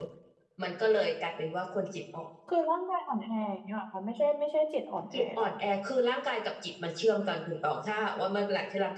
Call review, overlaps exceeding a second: none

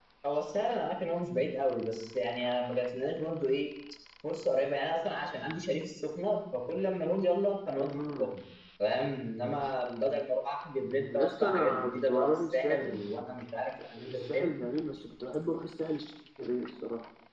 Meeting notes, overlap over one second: present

